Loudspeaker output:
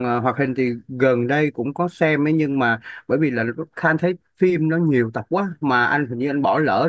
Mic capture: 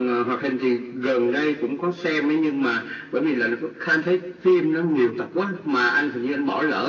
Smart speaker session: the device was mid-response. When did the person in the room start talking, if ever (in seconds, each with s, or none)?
none